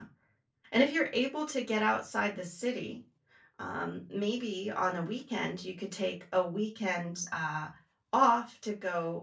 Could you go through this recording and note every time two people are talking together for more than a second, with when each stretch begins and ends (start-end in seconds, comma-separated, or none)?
none